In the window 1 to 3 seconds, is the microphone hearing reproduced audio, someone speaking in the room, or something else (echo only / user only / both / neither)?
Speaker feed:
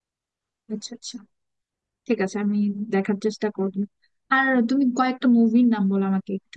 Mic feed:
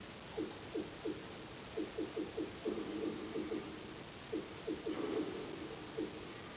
neither